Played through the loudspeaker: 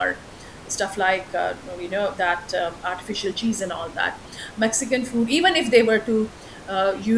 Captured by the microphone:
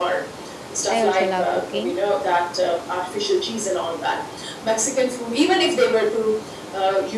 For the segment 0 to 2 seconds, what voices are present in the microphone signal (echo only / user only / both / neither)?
both